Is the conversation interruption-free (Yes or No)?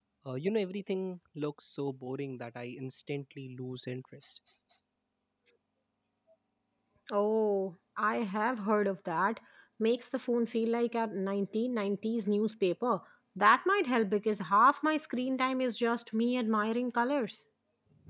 Yes